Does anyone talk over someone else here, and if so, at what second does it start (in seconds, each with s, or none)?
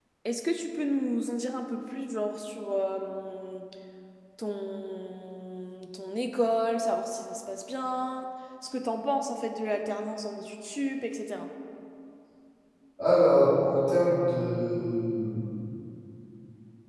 none